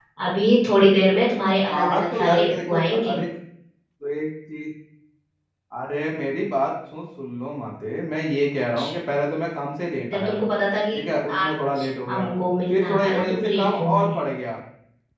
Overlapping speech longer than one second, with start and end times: 1.7-3.1, 11.0-12.3, 12.7-14.1

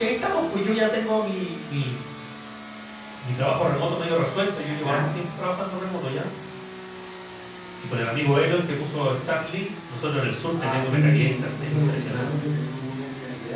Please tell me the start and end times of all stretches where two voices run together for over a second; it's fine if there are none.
10.6-12.3

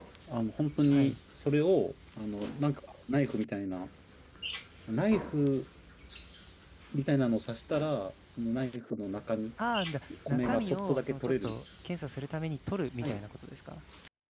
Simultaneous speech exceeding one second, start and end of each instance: 10.3-11.5

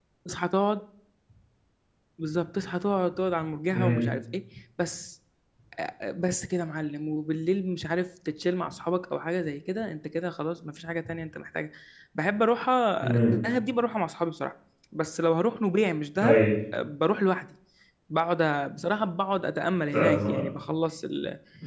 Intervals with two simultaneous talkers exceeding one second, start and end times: none

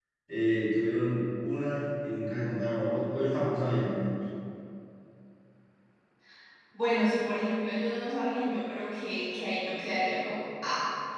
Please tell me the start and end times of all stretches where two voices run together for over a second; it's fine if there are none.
none

